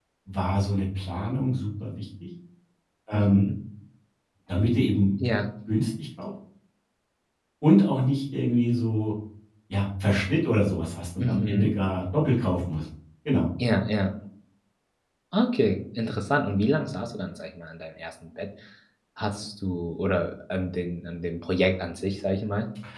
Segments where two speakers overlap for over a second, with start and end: none

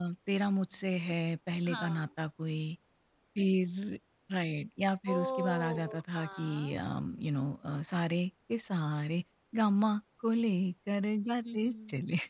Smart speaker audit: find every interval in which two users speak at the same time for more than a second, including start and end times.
5.1-6.8

